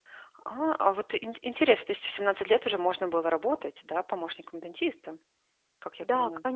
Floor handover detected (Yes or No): Yes